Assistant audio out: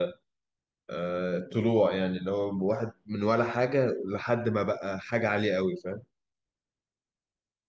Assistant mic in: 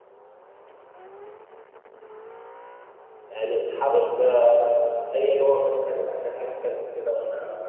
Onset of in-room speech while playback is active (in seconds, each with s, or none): 3.3 s